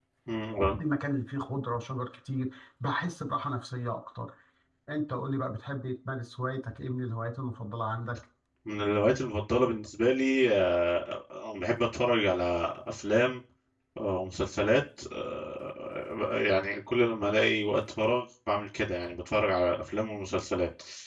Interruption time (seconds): none

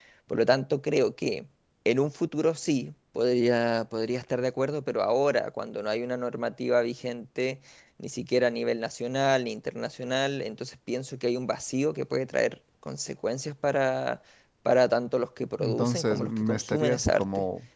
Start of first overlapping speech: 16 s

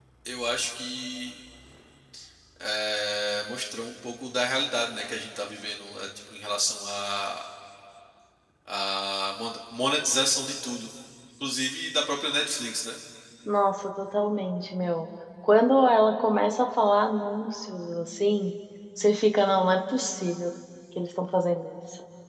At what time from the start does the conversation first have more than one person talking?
none

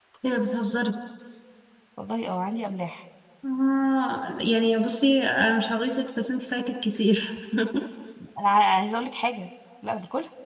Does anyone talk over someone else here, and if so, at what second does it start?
none

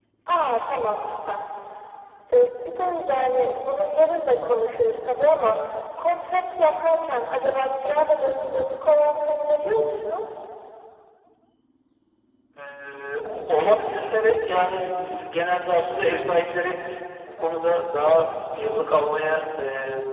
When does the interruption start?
none

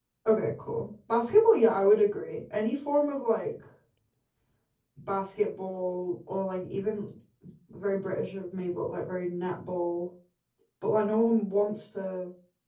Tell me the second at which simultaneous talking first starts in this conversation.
none

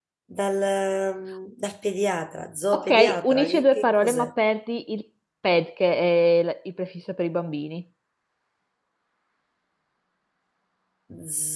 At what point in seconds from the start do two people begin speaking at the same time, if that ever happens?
3 s

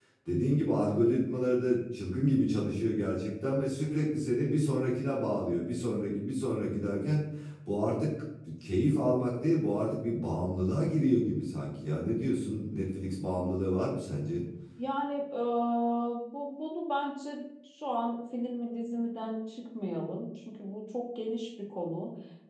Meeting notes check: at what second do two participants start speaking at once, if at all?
none

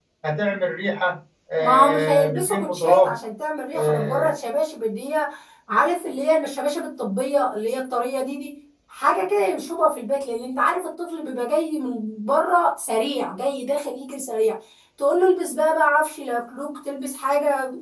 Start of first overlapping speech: 2 s

